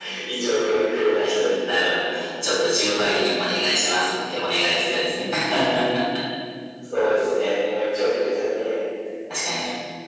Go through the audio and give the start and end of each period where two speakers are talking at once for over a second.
none

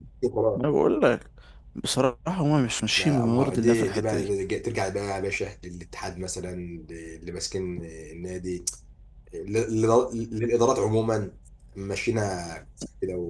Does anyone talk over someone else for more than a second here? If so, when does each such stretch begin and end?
3.0-4.3

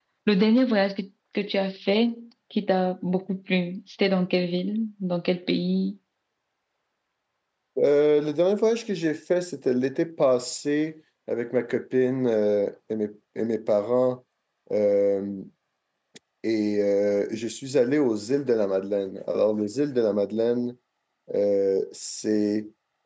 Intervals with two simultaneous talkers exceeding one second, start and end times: none

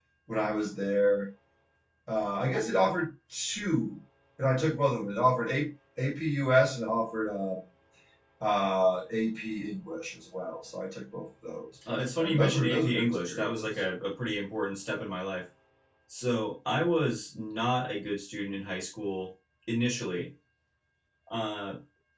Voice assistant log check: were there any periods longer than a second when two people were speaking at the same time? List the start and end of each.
11.9-13.7

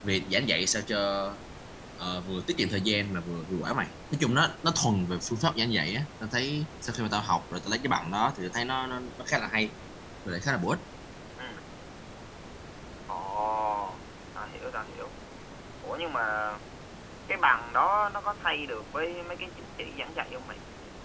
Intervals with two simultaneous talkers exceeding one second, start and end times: none

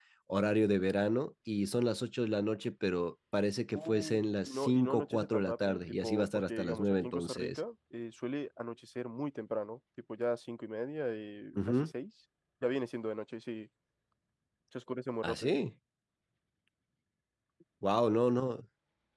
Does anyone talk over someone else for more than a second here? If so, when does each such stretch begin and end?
3.8-7.6

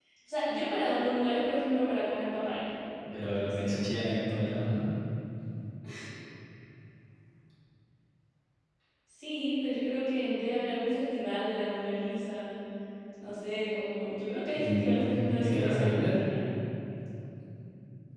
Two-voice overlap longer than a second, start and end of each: 14.6-16.2

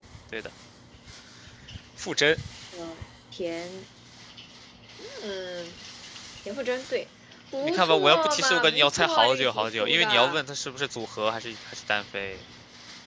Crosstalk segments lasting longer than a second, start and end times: 7.6-10.4

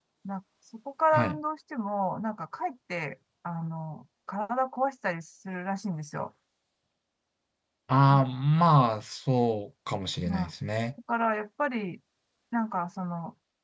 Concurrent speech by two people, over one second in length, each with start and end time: none

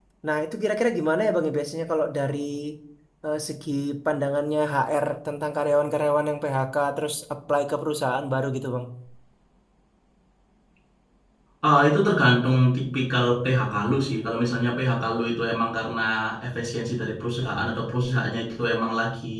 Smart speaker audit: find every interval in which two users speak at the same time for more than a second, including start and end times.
none

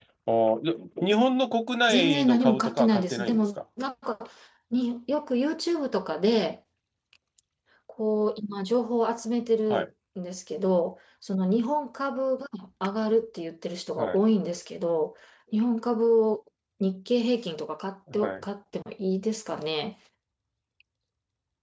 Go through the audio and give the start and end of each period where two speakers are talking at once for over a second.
1.9-3.4

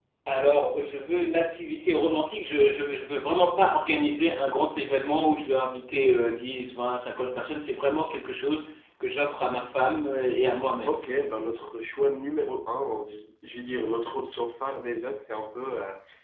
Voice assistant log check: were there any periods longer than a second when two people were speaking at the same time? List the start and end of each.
none

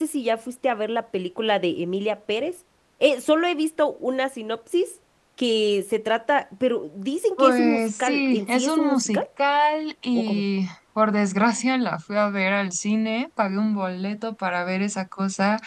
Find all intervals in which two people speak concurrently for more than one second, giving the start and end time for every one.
7.4-9.2

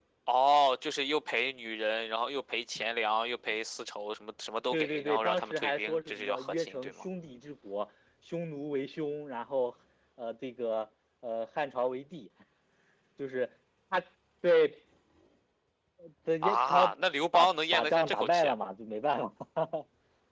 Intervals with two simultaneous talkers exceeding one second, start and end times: 4.7-6.9, 17.3-18.5

